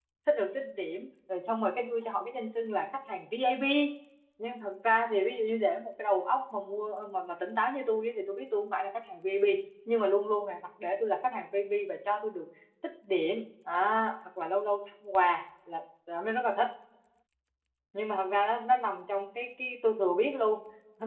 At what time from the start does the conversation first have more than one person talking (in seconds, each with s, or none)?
none